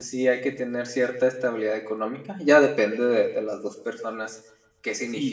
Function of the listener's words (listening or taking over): taking over